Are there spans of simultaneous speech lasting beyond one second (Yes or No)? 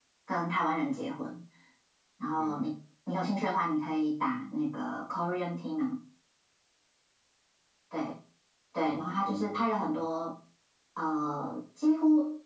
Yes